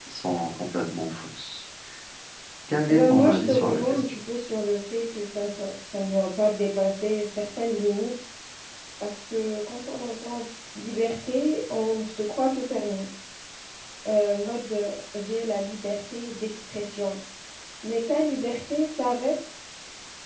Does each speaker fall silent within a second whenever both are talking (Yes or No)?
No